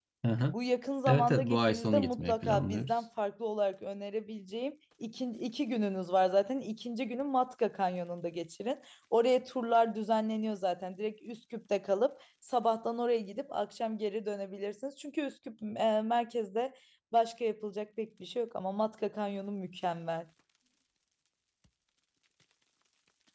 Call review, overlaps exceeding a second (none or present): present